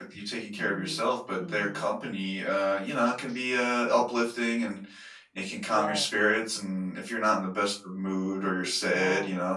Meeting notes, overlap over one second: none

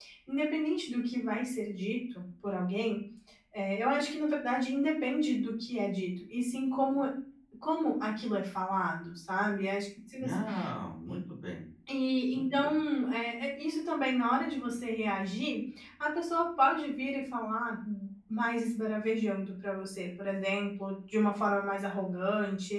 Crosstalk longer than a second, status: none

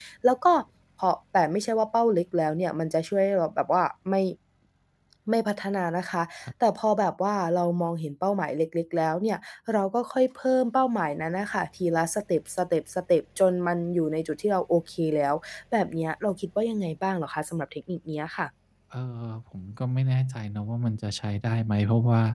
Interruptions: none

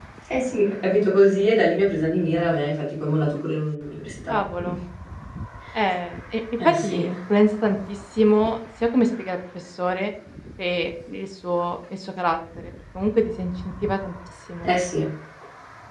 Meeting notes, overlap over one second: none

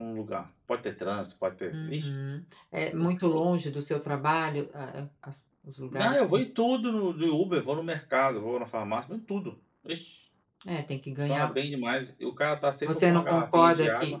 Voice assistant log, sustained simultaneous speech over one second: present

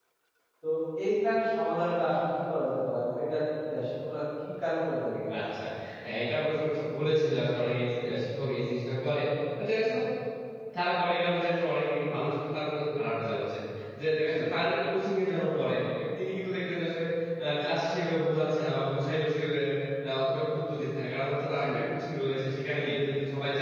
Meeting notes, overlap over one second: none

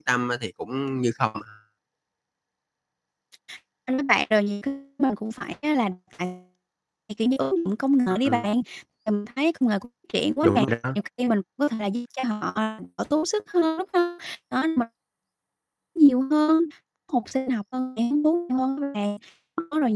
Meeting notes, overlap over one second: none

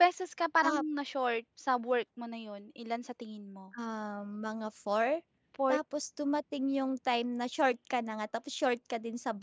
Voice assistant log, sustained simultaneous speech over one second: none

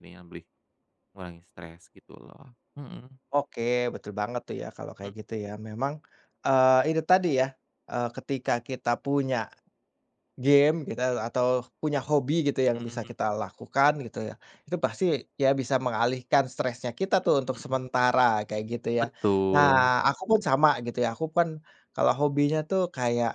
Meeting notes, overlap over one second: none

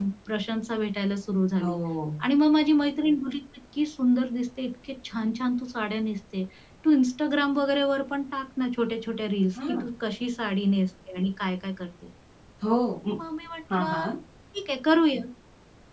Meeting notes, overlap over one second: none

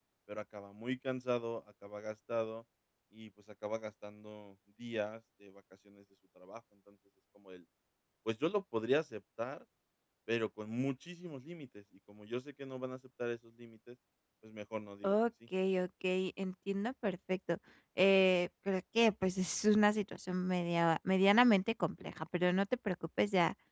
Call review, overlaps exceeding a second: none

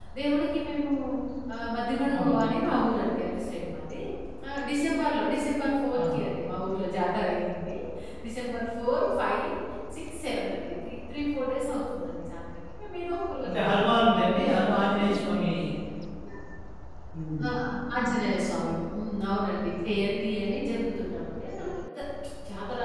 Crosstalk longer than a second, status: present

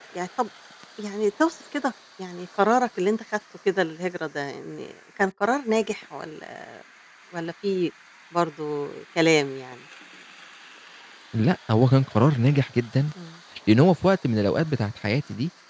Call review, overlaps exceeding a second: none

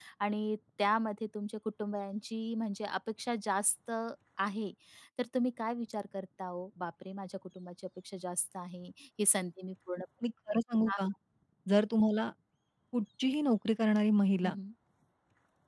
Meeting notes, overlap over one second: none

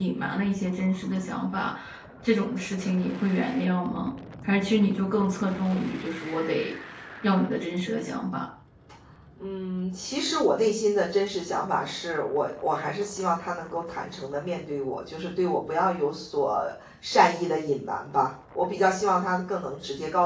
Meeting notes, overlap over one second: none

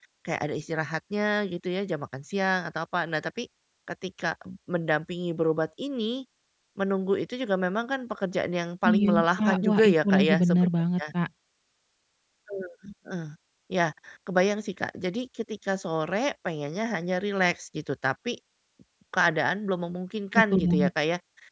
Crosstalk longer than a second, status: present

